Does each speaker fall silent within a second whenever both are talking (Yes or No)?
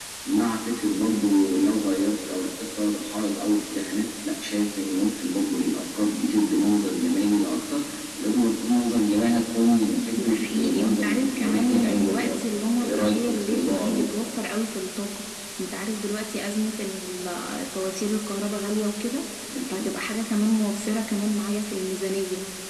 No